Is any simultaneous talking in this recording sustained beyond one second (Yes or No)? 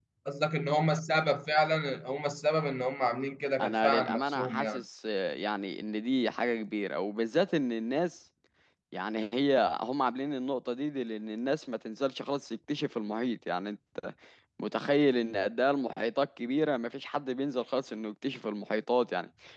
Yes